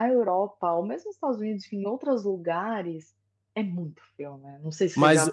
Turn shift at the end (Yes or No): Yes